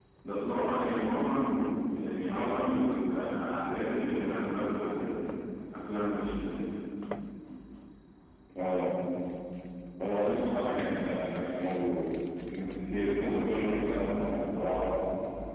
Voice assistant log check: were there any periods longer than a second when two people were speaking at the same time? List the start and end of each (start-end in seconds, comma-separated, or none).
none